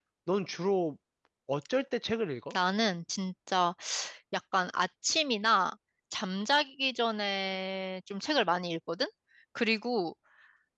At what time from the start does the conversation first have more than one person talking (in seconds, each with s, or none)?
none